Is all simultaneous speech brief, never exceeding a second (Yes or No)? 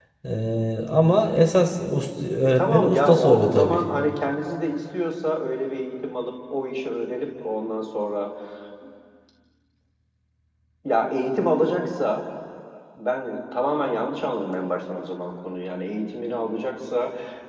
No